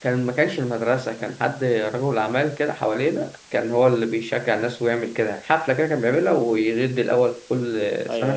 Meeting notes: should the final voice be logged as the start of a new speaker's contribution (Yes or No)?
Yes